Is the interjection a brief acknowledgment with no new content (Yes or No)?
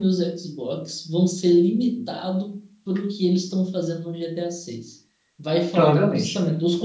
Yes